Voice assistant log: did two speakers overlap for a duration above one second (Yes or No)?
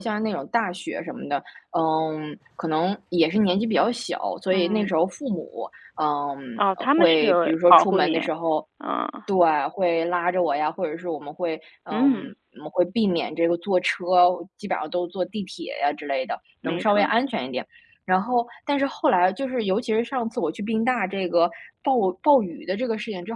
Yes